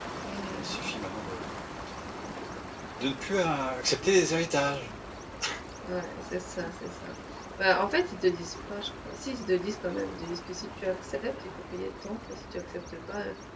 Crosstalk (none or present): none